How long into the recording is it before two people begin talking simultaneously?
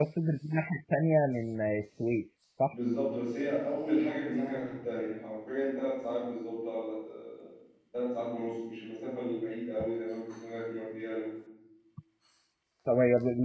none

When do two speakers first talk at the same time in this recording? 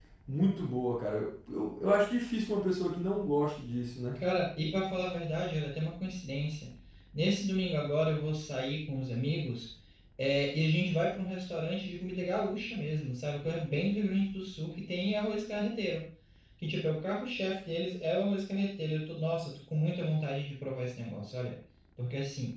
none

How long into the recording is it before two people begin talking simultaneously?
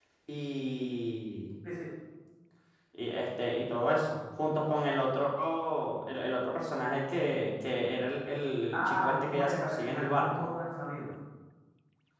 9 s

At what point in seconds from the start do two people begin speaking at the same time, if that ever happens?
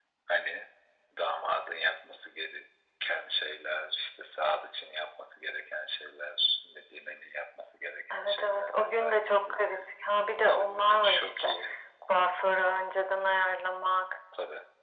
8 s

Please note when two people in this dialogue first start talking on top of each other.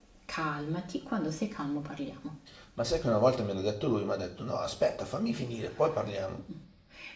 none

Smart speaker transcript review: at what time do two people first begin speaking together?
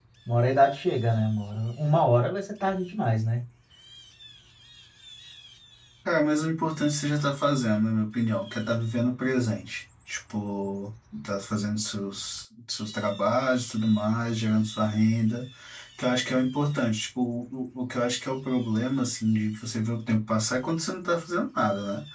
none

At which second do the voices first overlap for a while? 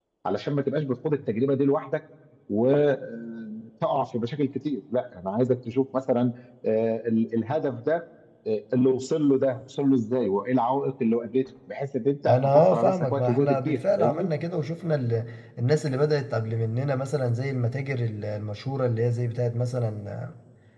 12 s

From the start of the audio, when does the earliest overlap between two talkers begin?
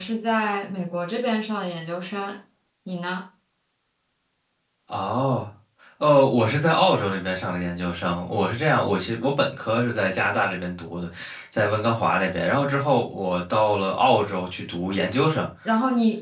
none

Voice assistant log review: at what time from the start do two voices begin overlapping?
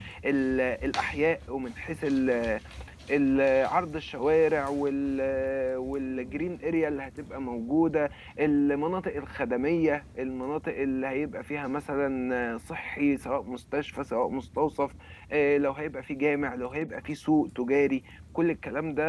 none

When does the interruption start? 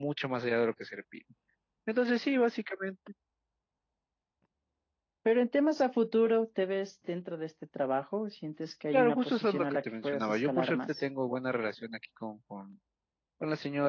9 s

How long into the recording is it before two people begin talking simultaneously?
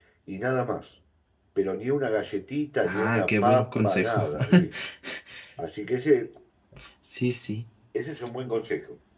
3 s

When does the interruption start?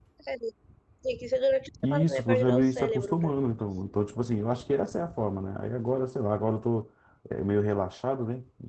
2 s

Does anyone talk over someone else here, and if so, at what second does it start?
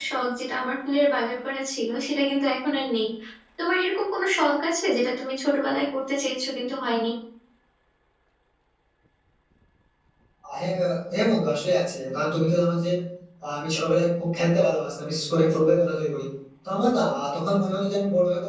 none

